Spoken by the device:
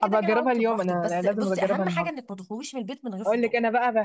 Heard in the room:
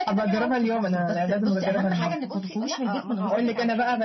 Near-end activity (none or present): present